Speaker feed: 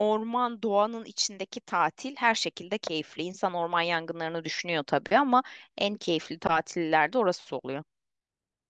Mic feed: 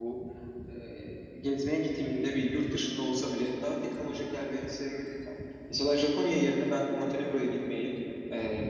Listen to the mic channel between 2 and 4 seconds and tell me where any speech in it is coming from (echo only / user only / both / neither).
user only